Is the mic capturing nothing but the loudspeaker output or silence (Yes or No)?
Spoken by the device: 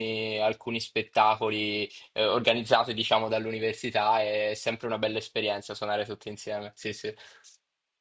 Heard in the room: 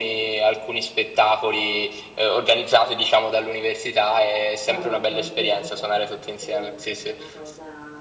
No